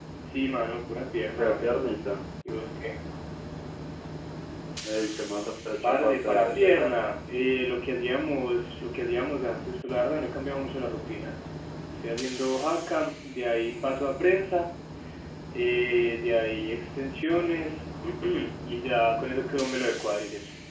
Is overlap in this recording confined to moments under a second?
No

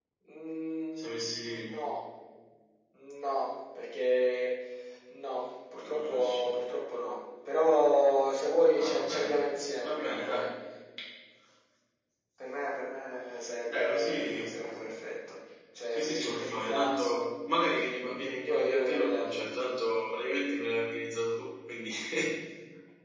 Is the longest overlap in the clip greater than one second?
Yes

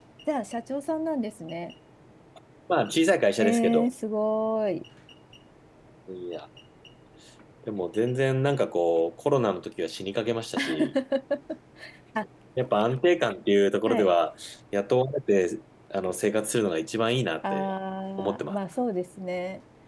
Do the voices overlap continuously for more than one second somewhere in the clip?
No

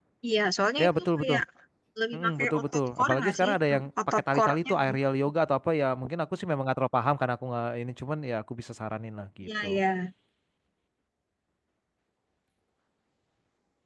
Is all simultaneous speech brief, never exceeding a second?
No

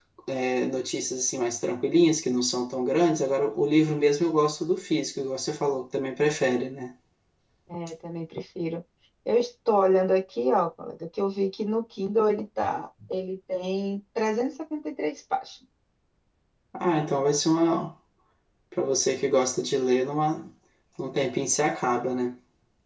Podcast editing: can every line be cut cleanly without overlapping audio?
Yes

